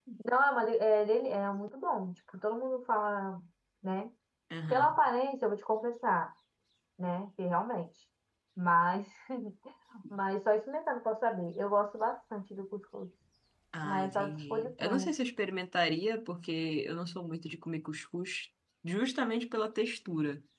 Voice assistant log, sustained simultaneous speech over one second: present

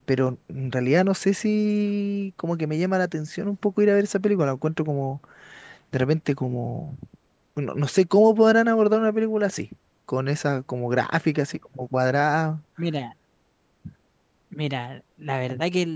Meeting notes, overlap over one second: none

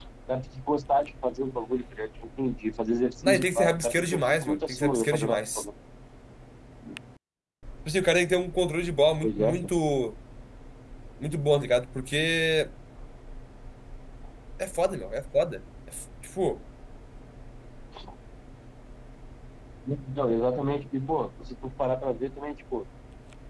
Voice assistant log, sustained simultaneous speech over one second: present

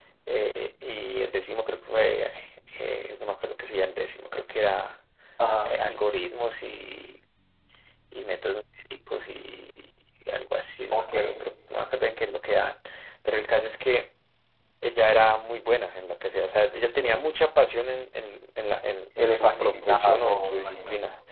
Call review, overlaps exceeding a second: present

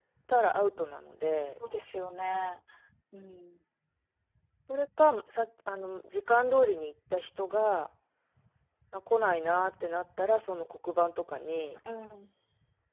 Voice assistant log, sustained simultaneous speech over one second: none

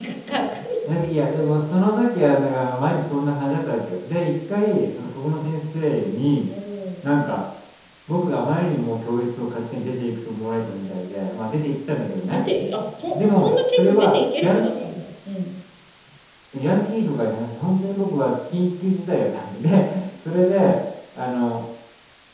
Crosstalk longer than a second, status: present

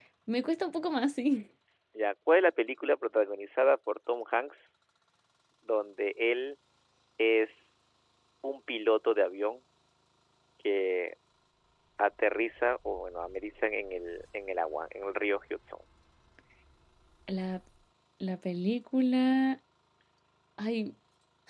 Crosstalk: none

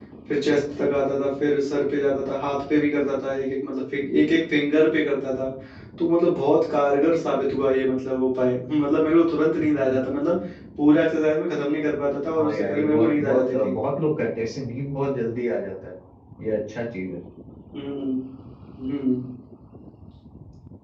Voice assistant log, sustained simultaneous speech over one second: present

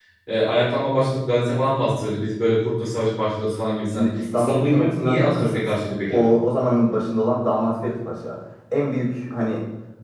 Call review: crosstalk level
present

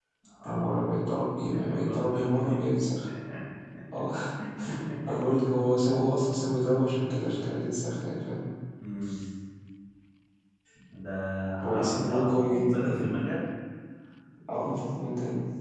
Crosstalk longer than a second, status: present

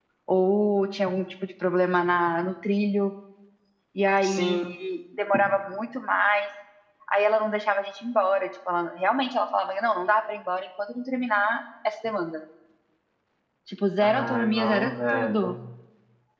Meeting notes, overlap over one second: present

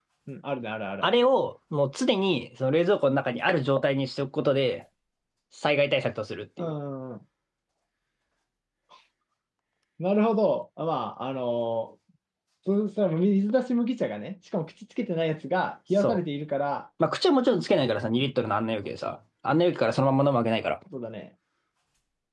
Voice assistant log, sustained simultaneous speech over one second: none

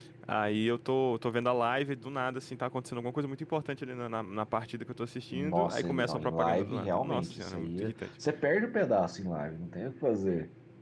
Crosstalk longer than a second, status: present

